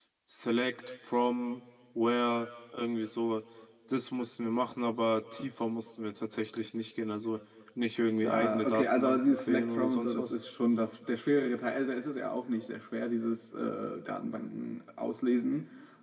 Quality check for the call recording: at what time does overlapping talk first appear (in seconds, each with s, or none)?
8.2 s